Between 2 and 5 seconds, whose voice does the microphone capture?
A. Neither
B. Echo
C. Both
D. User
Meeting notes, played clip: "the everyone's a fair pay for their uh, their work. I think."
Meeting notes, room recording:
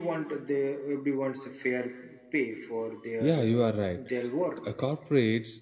C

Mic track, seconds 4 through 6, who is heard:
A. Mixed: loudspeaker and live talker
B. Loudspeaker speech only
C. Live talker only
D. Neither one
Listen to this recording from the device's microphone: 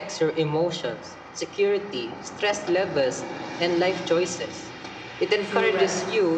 A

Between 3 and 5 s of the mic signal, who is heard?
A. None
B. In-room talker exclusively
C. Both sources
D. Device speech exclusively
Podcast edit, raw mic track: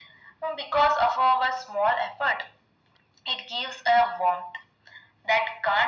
D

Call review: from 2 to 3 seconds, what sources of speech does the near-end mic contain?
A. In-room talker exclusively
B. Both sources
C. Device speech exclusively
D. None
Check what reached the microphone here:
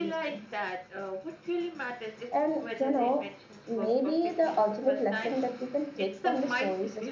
B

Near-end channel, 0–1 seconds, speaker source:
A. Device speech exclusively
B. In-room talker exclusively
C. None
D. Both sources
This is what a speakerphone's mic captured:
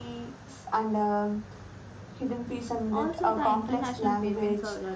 A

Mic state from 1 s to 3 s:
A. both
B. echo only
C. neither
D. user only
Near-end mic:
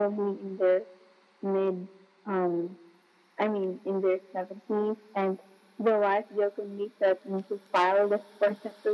B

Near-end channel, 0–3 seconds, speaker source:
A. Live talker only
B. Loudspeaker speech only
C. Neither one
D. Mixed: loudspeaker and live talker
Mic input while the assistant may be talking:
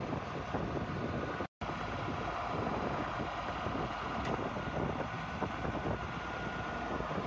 C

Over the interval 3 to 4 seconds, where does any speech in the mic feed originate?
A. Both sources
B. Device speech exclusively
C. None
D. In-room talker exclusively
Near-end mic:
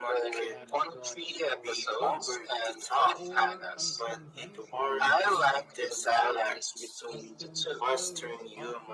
A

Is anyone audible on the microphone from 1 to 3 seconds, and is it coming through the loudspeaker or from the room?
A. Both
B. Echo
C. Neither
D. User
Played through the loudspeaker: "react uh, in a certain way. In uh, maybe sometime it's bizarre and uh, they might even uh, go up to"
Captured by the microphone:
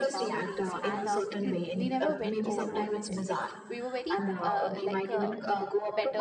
A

